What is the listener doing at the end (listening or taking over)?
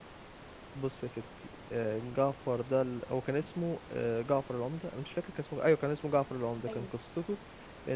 listening